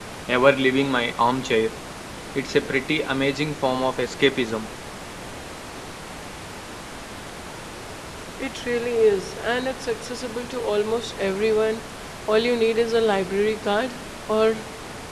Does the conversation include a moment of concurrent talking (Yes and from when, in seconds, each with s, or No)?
No